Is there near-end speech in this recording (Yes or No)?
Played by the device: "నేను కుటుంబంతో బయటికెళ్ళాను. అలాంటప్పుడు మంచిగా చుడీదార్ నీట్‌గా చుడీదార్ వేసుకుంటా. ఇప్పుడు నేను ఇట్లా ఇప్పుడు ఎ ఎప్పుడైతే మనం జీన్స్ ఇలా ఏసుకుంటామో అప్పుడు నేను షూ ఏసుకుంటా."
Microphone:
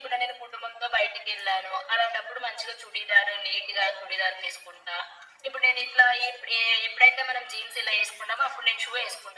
No